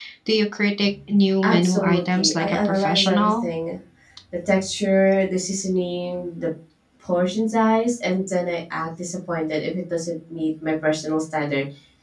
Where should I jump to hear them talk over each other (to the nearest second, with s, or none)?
1 s